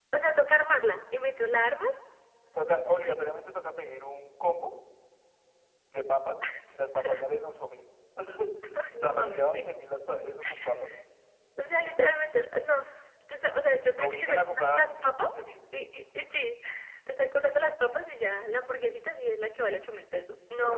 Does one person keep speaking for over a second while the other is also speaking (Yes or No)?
Yes